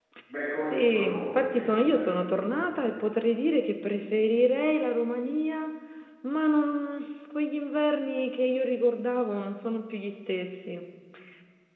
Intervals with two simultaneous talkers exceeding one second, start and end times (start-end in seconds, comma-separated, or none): 0.7-2.3